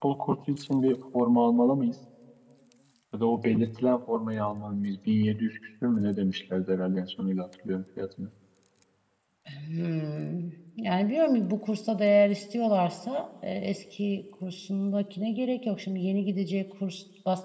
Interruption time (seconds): none

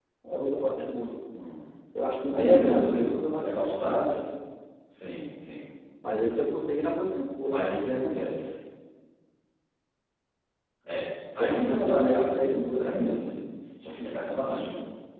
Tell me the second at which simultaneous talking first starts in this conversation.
2.3 s

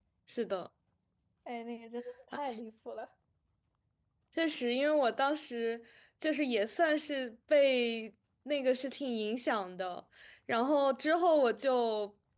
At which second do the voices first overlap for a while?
none

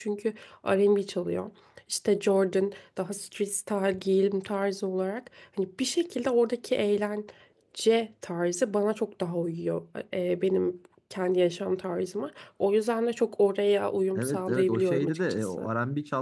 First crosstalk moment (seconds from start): 14.1 s

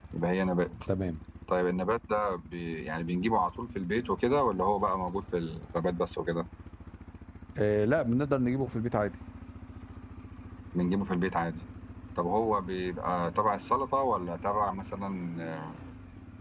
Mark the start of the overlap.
none

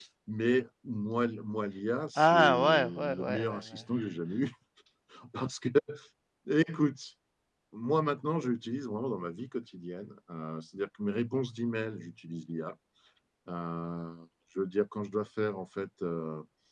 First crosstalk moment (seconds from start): 2.2 s

